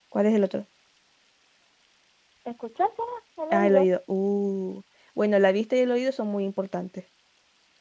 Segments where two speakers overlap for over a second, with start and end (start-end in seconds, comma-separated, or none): none